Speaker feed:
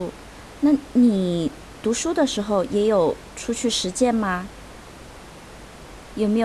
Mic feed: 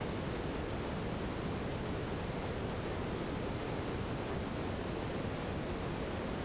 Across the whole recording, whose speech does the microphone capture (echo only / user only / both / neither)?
neither